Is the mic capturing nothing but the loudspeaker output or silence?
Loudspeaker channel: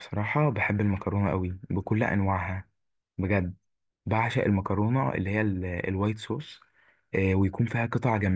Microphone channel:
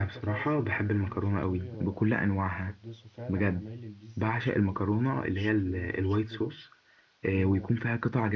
No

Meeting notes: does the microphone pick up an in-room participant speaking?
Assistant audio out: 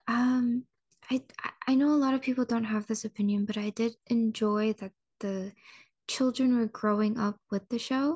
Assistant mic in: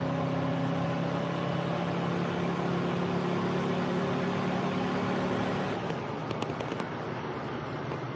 No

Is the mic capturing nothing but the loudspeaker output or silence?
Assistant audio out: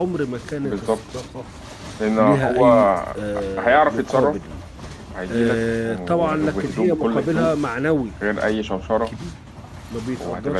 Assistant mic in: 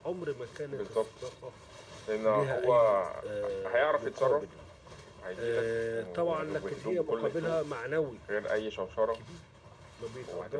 Yes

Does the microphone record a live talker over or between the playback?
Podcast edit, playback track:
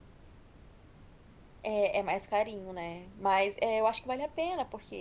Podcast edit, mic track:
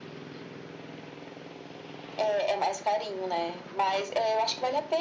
No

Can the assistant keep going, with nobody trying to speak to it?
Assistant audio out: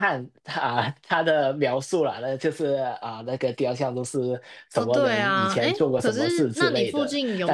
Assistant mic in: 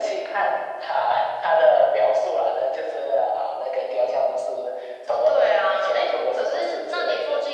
Yes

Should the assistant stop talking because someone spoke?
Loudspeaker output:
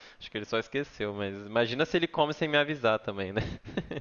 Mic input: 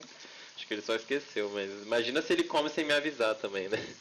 No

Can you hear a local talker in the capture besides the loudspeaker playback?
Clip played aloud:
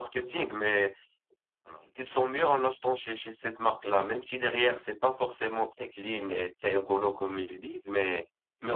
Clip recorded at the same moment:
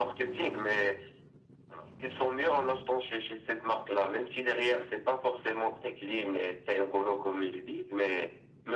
No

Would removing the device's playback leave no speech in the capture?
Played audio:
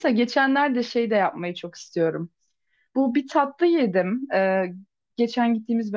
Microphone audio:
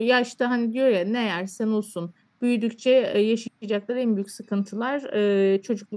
No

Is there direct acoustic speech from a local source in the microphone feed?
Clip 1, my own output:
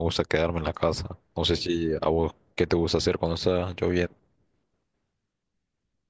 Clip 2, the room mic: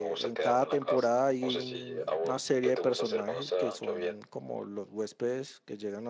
Yes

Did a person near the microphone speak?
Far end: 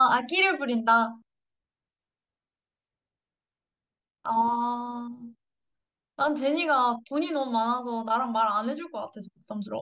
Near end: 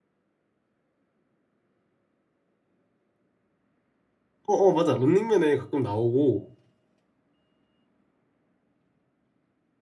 Yes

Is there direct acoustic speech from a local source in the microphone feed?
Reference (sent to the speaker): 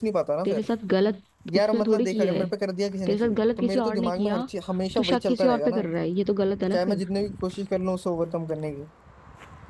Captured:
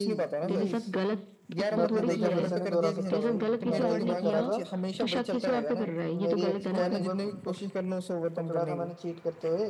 Yes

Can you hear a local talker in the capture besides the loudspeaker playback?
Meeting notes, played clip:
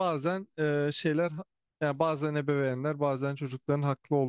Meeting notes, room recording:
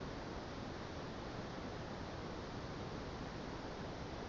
No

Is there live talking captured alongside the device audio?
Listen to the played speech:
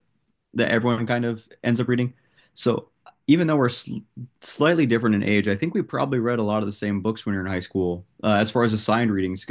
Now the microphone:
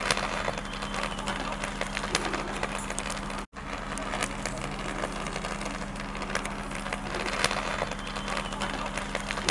No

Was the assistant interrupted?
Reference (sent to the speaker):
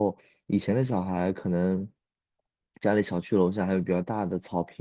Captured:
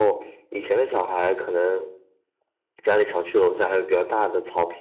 No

